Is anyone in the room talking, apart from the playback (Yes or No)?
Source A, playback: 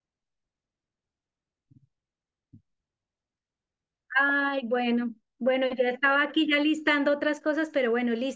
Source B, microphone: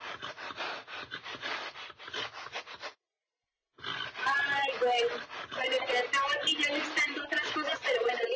No